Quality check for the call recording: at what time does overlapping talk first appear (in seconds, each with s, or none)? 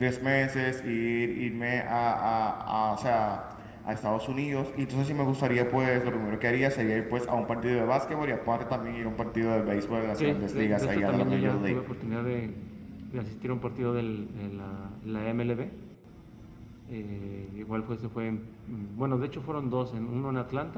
10.2 s